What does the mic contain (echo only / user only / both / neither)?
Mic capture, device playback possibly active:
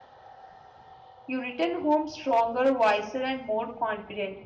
user only